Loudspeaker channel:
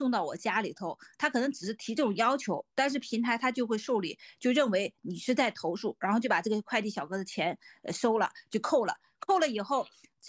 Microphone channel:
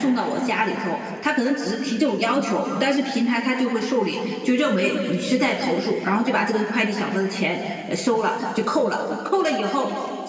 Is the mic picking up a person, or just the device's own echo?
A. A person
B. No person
B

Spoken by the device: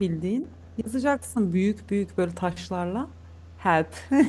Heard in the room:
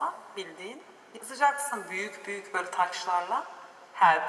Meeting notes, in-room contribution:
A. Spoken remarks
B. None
B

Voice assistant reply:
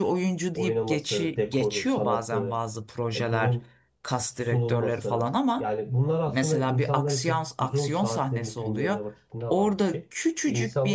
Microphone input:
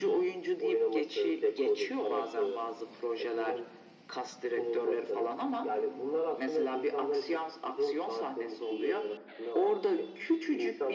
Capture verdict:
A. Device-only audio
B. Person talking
A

